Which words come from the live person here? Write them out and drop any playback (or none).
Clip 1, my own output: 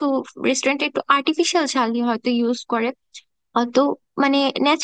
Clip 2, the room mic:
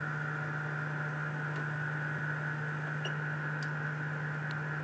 none